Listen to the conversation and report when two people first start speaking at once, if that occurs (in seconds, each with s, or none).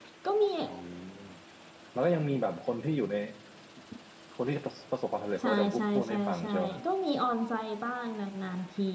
5.4 s